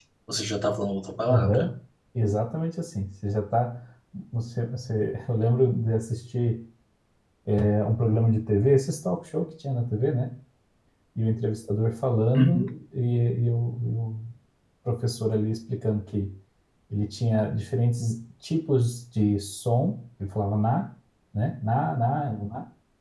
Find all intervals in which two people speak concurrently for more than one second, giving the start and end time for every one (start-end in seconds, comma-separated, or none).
none